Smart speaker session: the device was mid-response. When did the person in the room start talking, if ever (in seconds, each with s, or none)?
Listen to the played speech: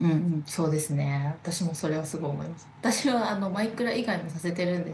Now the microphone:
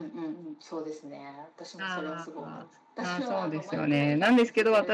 1.8 s